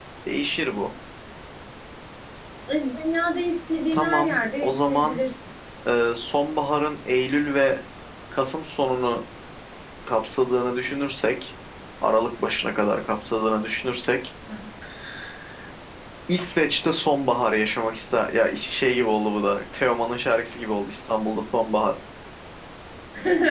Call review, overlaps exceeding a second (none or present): present